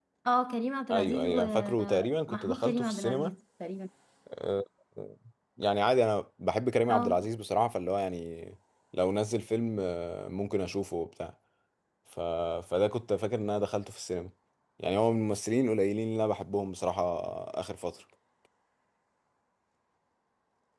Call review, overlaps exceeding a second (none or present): present